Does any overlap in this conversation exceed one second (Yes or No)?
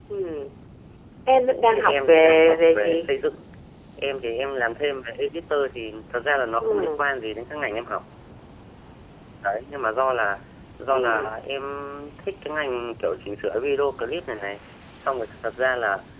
Yes